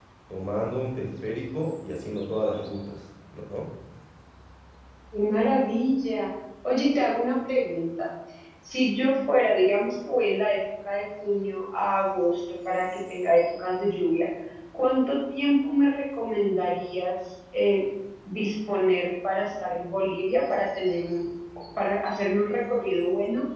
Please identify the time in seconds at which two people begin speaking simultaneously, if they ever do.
none

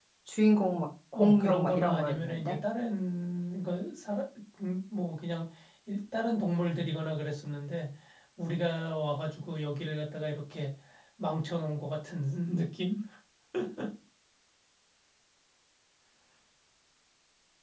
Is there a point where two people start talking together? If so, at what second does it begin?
1.1 s

